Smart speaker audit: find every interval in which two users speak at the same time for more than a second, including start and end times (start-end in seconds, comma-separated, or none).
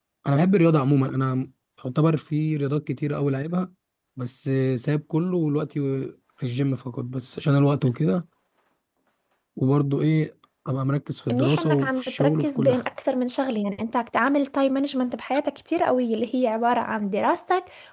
11.3-12.8